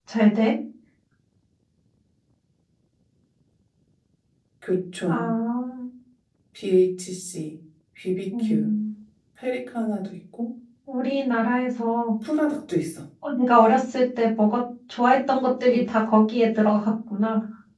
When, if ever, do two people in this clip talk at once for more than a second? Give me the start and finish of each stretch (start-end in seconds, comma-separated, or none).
none